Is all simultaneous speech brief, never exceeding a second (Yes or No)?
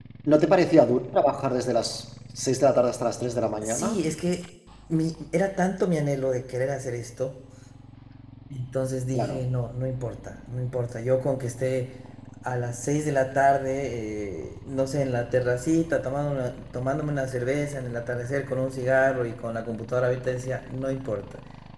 Yes